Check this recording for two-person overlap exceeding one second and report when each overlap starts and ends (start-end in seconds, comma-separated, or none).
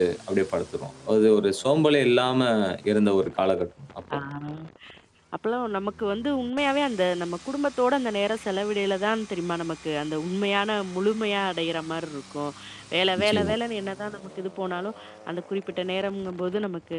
none